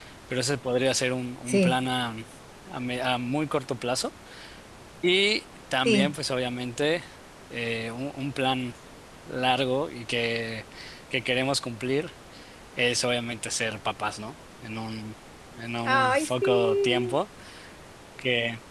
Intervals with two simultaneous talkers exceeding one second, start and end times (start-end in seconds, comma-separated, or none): 15.8-17.1